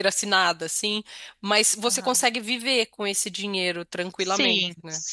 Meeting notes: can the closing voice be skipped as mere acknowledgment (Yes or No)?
No